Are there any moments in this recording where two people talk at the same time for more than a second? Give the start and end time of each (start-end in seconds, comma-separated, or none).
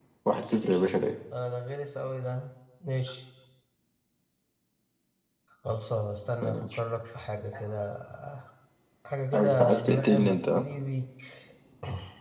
9.3-10.7